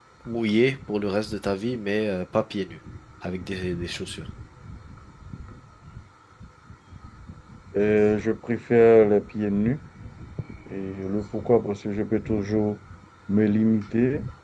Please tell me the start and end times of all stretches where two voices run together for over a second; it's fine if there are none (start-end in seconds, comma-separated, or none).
none